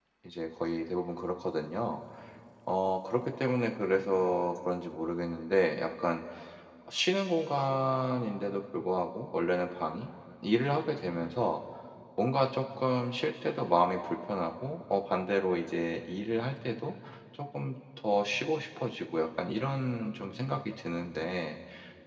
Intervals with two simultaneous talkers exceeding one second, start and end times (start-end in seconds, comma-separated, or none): none